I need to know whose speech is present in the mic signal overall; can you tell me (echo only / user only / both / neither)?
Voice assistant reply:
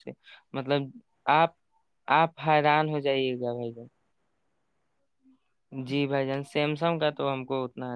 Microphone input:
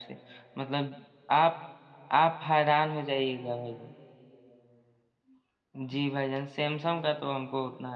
echo only